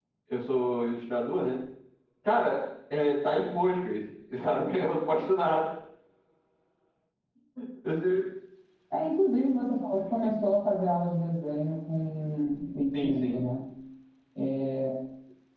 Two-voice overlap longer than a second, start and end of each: none

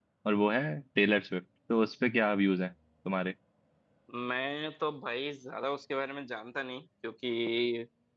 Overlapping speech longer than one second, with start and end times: none

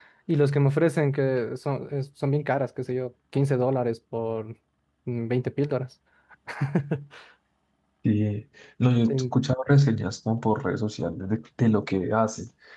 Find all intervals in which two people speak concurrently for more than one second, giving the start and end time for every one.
none

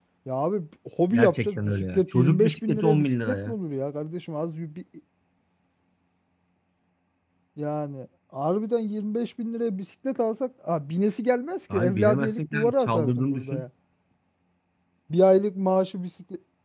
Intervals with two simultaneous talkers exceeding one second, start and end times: 1.1-3.6, 11.7-13.6

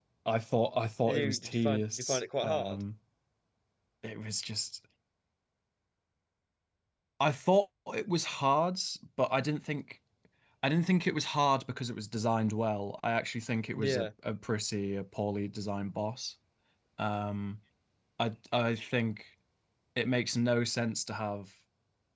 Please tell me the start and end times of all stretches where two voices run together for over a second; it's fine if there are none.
1.1-2.8

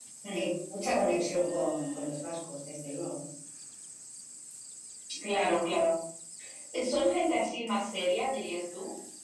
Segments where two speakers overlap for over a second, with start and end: none

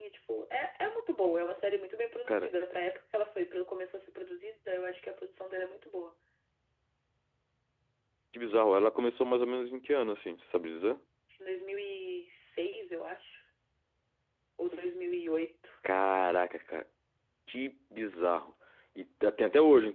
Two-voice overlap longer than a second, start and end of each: none

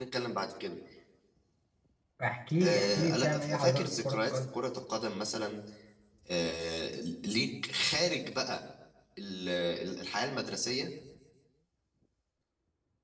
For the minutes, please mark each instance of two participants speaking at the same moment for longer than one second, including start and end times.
2.6-4.5

